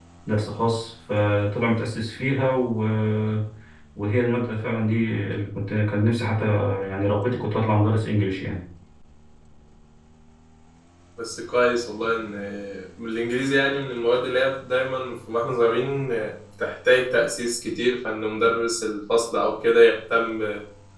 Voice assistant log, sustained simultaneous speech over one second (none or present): none